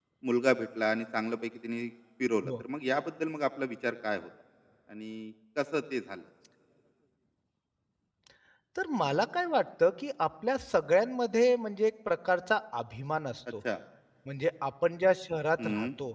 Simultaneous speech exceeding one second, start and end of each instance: none

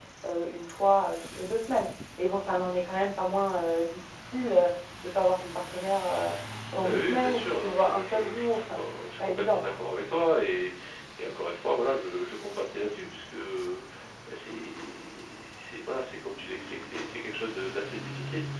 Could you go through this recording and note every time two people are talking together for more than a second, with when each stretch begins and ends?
6.8-9.7

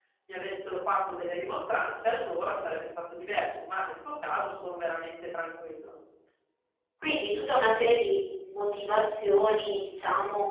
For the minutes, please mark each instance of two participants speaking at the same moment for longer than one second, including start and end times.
none

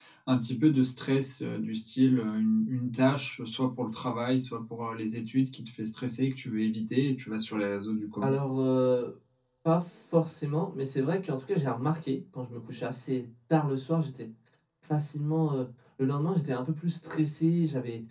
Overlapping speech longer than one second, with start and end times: none

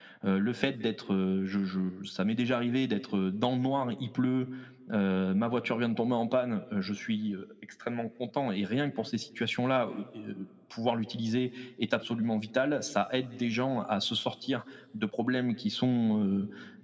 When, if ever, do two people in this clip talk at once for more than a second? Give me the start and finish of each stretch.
none

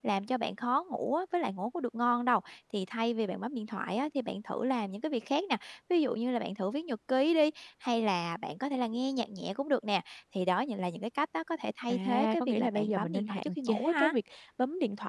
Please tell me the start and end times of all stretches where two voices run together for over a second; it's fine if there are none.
11.9-14.1

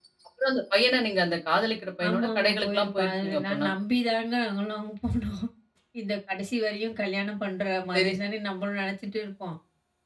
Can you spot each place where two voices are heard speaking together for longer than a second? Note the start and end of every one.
2.1-3.7

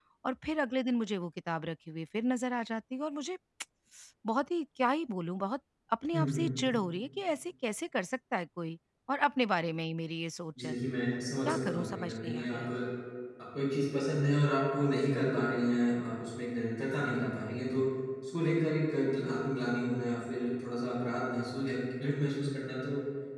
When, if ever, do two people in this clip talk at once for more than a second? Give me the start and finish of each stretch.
11.4-12.7

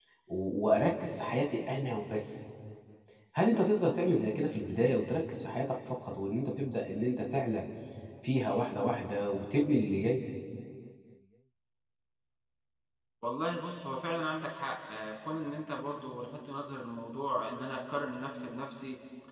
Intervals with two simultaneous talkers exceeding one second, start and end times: none

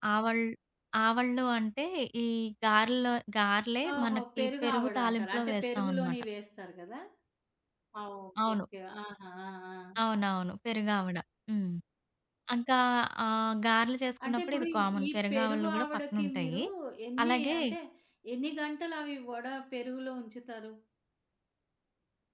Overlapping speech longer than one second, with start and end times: 3.9-6.2, 14.3-16.6

